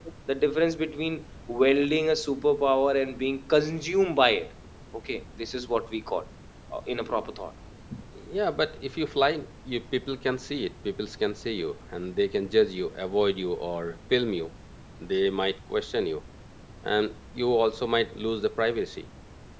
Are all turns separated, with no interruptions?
Yes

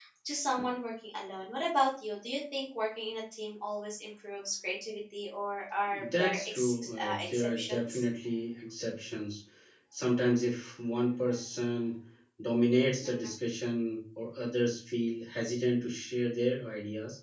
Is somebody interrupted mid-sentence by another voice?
Yes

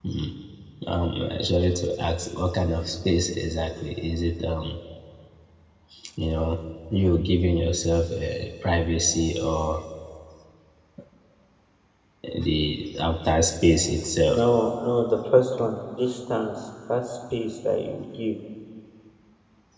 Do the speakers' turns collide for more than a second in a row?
No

